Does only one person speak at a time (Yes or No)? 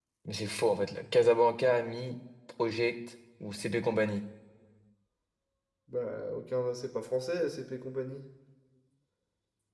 Yes